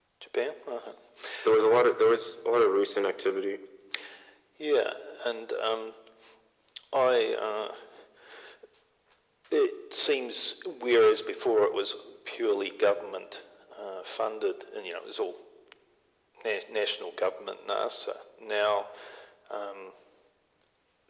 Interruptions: none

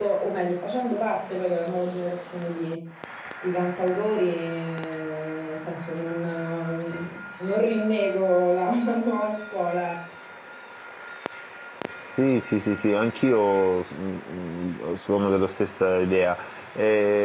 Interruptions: none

